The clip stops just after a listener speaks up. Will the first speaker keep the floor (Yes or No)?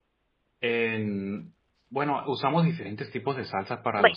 Yes